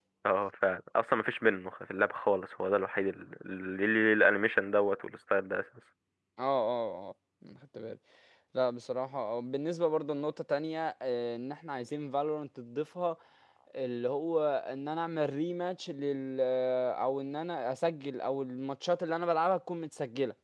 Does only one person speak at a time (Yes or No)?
Yes